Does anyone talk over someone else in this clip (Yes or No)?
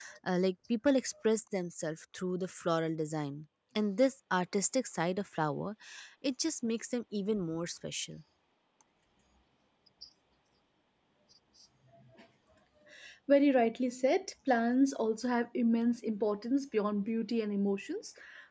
No